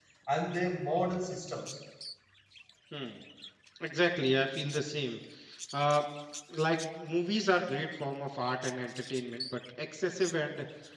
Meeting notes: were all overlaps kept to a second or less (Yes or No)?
Yes